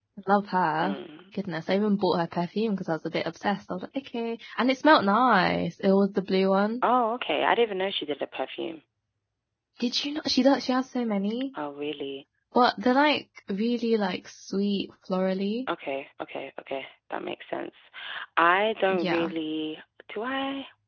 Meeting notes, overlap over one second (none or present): none